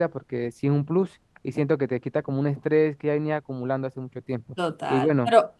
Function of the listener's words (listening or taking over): taking over